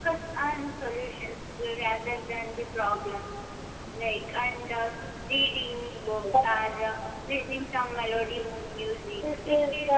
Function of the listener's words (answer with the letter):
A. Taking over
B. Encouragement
A